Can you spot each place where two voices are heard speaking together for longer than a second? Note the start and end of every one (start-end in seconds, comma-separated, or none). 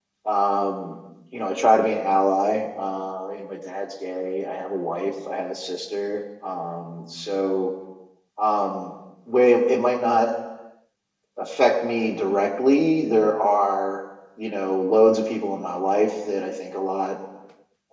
none